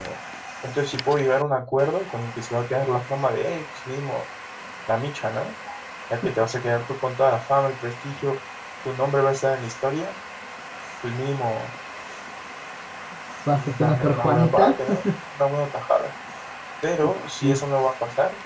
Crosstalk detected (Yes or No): Yes